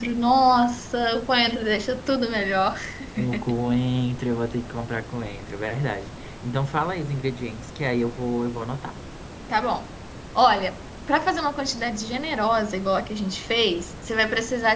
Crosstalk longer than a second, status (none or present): none